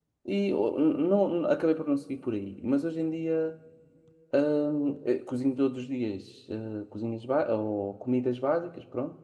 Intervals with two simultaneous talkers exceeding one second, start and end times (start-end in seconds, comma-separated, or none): none